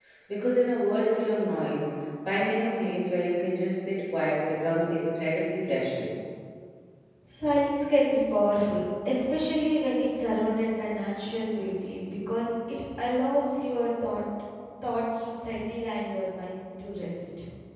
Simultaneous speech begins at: none

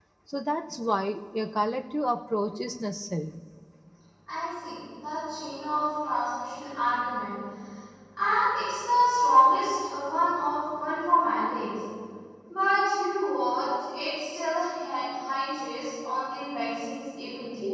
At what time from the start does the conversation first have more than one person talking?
none

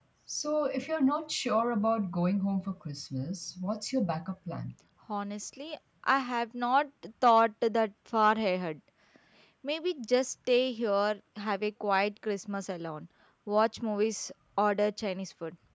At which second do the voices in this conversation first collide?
none

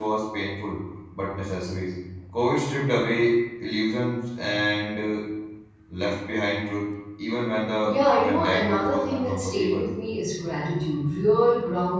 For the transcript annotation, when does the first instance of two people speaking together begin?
7.8 s

